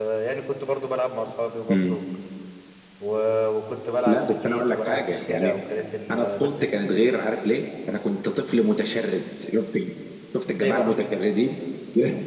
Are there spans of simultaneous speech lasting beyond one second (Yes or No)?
Yes